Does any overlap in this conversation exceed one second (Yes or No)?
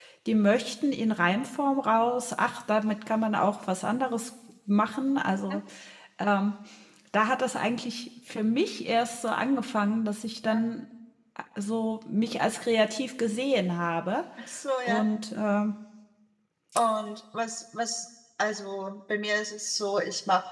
No